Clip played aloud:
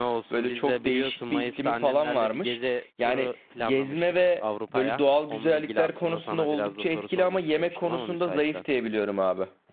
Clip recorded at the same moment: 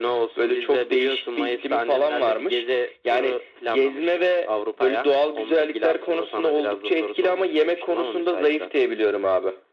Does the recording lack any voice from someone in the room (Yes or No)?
Yes